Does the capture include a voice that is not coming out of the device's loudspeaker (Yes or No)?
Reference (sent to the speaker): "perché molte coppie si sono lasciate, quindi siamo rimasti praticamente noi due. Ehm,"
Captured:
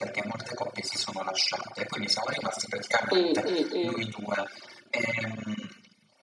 Yes